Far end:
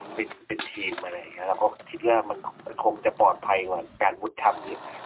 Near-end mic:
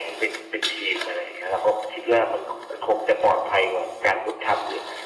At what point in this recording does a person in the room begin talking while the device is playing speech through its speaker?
none

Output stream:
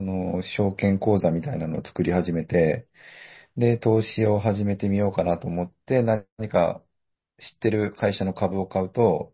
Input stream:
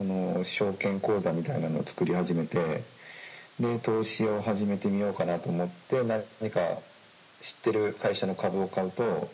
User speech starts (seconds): none

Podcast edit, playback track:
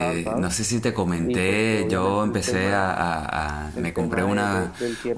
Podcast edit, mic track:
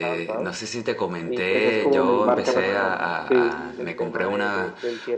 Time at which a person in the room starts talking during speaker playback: 2 s

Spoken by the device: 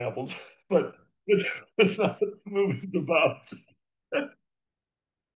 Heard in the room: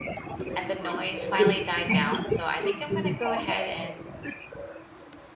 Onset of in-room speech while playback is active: 1 s

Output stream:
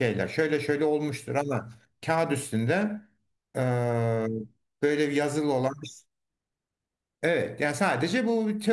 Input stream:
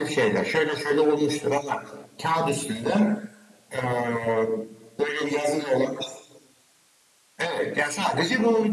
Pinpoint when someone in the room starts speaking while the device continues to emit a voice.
none

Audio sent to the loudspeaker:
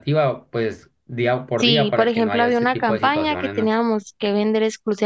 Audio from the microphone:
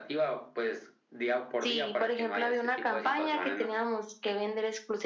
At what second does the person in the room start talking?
none

